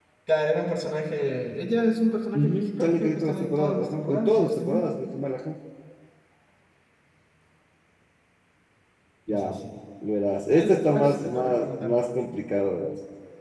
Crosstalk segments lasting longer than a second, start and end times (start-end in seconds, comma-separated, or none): 2.3-4.8, 10.5-12.0